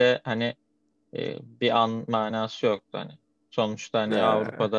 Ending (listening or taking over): listening